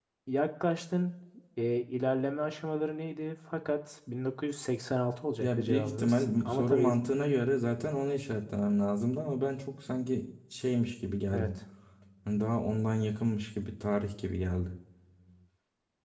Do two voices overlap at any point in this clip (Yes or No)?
Yes